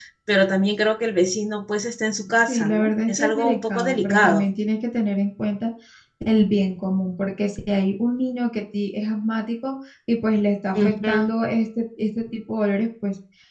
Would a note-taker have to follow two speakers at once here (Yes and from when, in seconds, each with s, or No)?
Yes, from 2.5 s